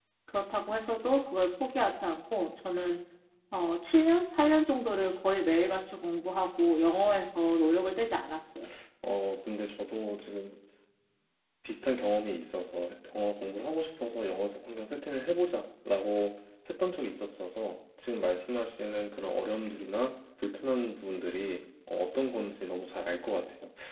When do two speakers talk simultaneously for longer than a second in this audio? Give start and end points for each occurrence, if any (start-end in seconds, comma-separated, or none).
none